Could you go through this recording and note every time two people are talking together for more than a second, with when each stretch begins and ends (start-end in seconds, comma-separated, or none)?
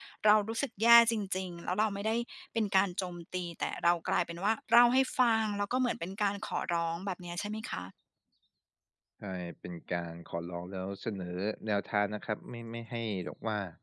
none